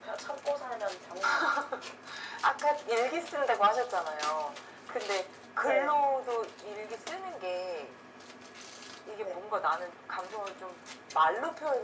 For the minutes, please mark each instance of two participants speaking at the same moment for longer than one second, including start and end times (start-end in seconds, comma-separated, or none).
none